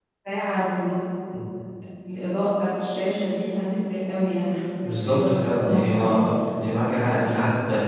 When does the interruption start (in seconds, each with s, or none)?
4.8 s